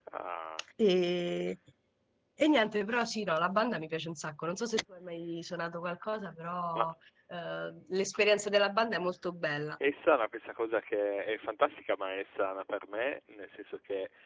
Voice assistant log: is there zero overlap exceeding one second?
Yes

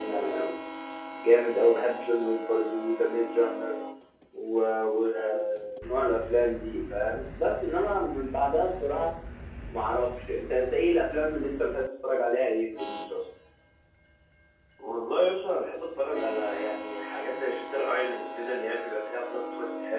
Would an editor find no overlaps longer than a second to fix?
Yes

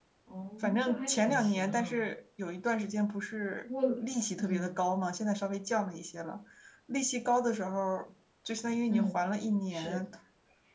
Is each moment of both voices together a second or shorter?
No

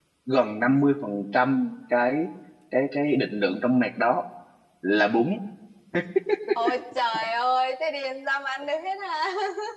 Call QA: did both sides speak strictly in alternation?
Yes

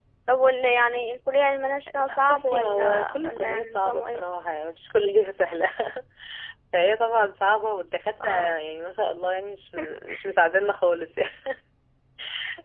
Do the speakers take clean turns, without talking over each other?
No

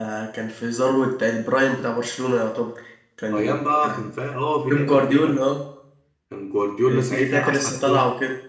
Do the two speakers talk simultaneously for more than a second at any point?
Yes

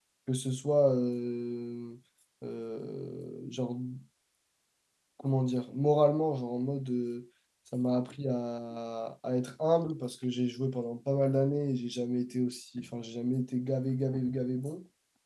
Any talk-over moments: No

